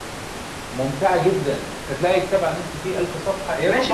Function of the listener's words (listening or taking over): taking over